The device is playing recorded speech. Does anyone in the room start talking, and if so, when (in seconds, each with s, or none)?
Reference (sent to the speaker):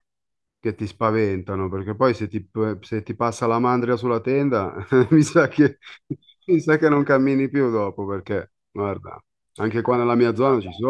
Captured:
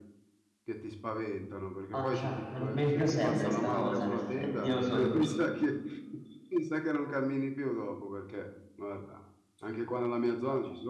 1.9 s